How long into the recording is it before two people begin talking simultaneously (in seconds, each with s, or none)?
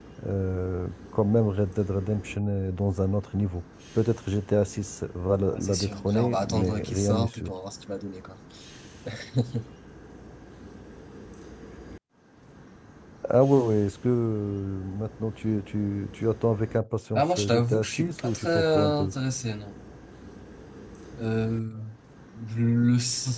5.5 s